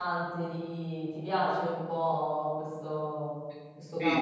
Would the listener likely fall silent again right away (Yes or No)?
No